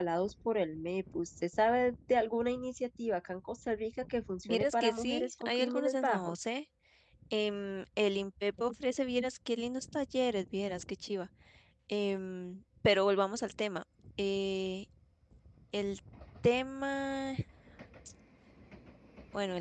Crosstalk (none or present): present